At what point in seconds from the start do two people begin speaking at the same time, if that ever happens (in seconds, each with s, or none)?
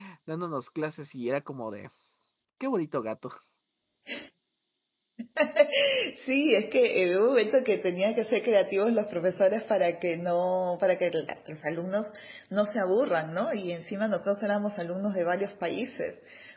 none